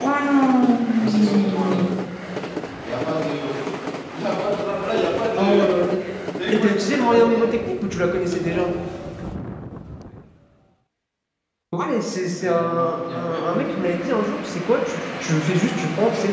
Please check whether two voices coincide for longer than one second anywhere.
Yes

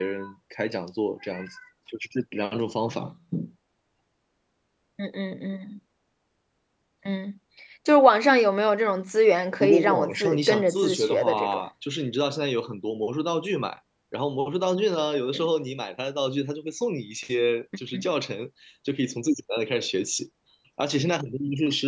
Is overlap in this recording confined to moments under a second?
No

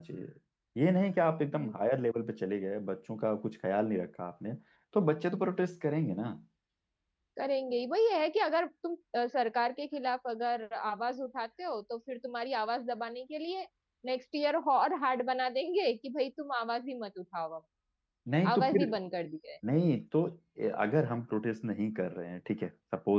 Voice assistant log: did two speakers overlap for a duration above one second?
No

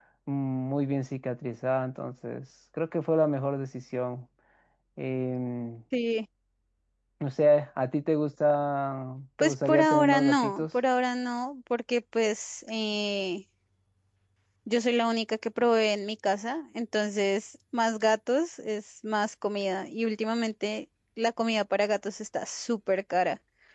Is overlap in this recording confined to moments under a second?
No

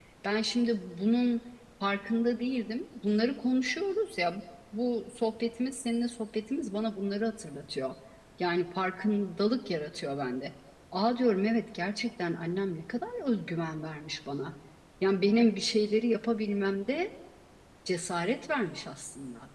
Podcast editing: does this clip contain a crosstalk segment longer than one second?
No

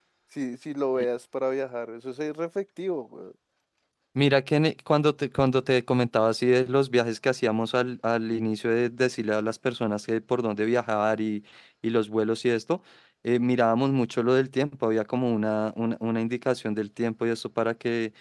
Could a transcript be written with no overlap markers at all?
Yes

